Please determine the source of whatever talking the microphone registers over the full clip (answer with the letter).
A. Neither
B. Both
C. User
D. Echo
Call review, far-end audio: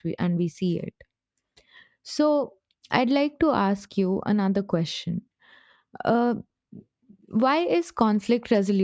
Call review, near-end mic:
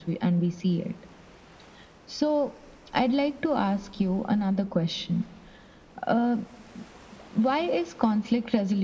D